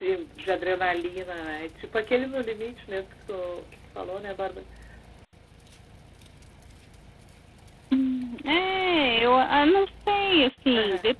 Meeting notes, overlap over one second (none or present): none